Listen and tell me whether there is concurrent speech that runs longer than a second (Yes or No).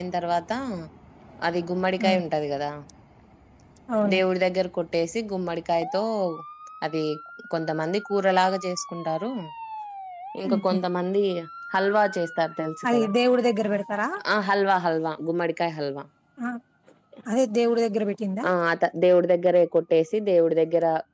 No